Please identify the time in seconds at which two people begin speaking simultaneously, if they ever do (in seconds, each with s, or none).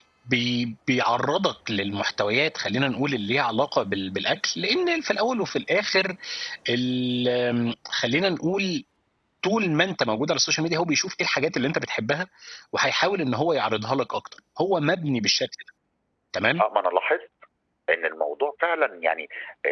none